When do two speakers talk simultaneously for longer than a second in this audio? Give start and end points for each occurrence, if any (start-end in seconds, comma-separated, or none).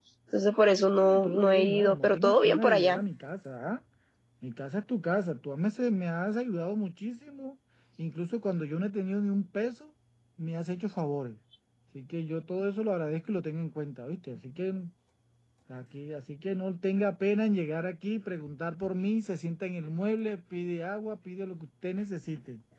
1.0-3.0